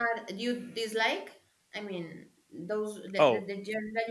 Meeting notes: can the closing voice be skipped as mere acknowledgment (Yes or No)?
Yes